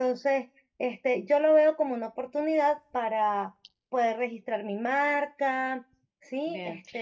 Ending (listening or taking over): taking over